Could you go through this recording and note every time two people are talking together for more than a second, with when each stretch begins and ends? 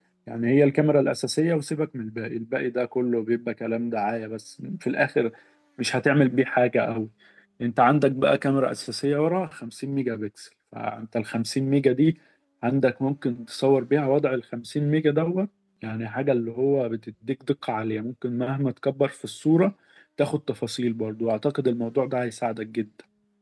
none

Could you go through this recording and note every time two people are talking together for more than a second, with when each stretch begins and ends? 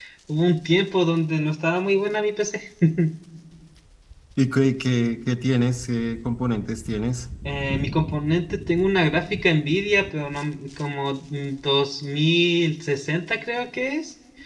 none

